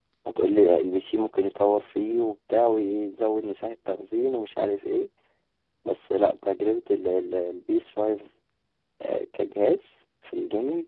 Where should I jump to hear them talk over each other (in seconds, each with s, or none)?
none